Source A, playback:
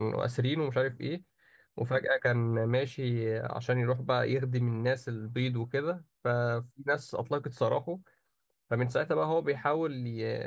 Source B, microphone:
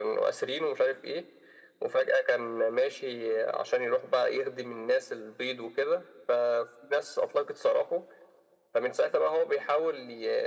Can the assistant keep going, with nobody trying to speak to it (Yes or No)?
Yes